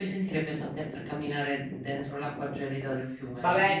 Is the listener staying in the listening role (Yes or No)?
No